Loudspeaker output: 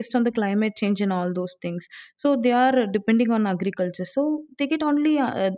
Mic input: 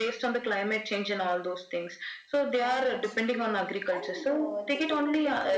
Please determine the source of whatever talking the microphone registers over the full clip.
both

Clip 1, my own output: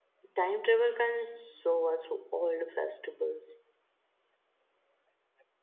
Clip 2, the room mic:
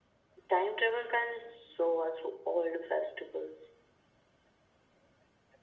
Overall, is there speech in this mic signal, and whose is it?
echo only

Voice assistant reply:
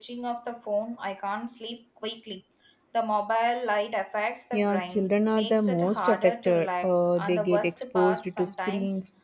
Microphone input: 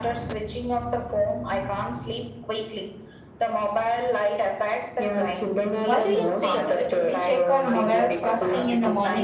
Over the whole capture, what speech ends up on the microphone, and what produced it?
both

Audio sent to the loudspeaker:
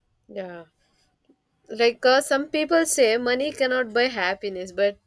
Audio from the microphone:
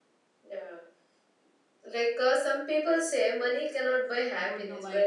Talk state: both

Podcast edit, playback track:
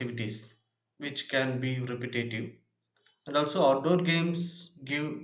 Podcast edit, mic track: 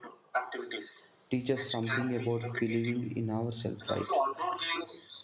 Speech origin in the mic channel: both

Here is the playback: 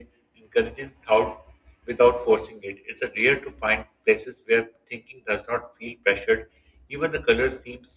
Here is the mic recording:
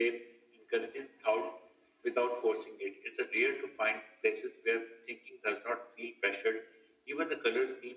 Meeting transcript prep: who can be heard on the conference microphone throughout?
echo only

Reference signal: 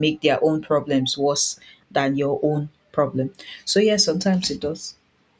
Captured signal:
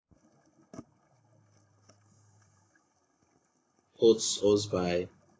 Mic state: user only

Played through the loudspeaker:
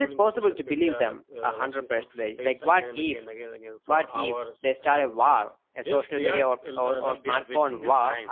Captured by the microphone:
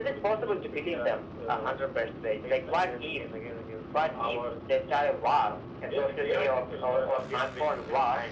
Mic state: echo only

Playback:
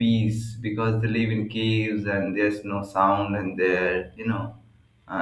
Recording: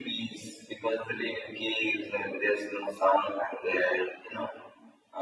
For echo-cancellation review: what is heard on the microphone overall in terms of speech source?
echo only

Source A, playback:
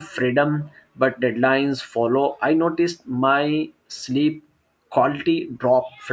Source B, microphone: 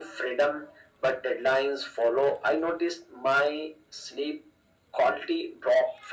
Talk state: echo only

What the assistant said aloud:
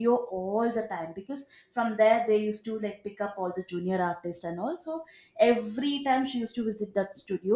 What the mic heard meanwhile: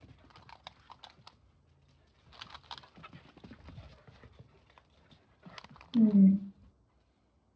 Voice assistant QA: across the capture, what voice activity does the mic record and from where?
user only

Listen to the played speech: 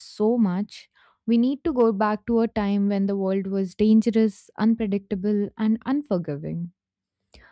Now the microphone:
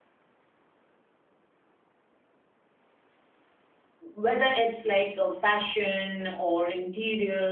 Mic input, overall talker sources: user only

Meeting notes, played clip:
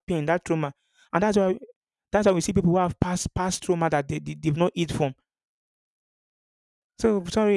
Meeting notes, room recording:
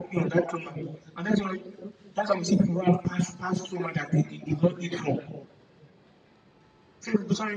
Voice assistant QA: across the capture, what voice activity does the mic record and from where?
echo only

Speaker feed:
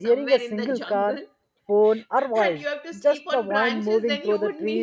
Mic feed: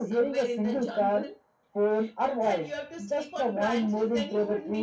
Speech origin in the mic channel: echo only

